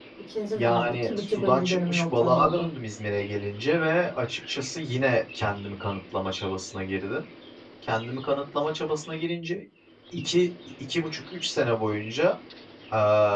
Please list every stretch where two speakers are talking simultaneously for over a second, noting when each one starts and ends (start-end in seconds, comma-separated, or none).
0.6-2.7